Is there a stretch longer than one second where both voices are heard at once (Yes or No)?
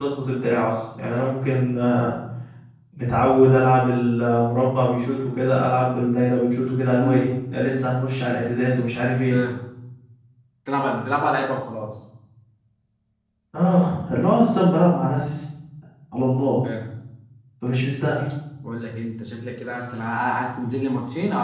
No